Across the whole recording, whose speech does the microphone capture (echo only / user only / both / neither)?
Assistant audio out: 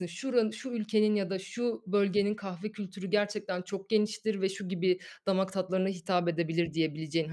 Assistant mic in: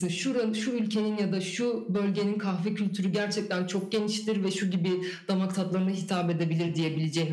echo only